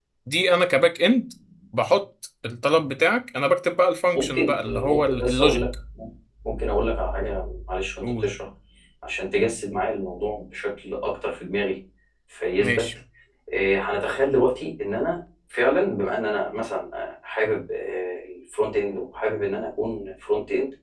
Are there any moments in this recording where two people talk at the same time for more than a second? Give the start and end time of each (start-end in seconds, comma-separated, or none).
4.2-5.7